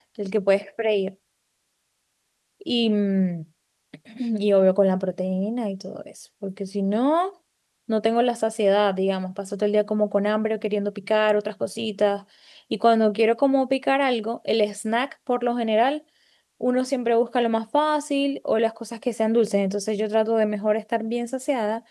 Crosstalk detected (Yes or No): No